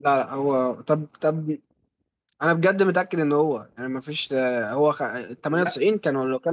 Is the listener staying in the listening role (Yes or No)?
Yes